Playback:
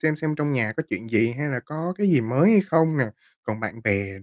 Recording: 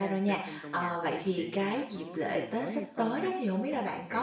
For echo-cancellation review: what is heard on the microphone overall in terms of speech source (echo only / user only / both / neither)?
both